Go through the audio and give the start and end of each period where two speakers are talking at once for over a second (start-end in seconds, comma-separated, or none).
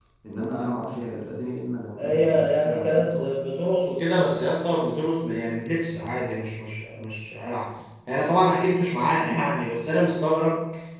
2.0-3.3